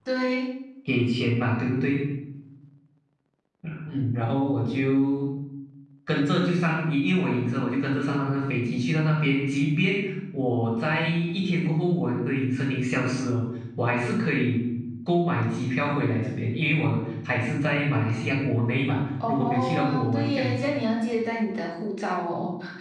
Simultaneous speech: Yes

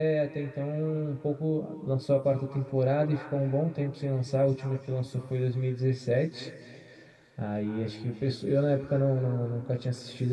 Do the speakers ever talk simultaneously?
No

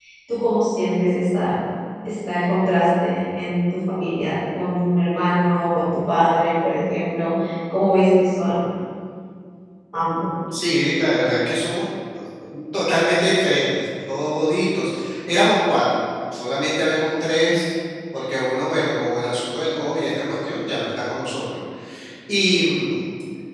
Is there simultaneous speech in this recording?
No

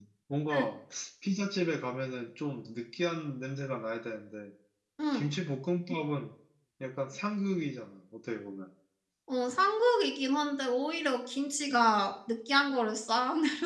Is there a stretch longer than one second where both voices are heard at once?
No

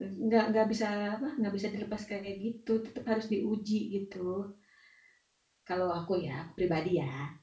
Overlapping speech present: No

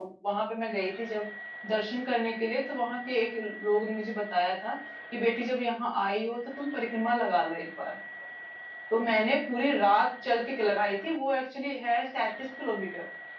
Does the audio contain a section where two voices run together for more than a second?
No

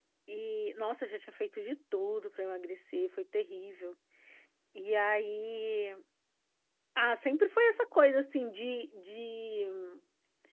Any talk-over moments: No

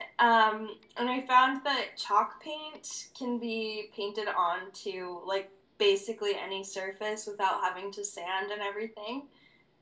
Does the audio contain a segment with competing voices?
No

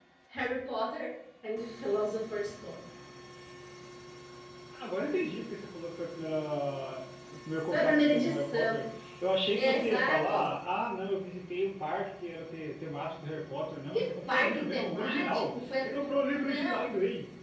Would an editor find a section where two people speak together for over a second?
Yes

